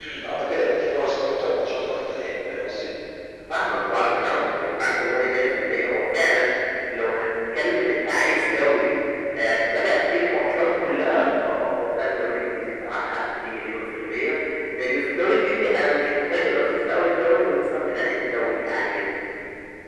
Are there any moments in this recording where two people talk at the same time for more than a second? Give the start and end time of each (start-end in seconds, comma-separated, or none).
none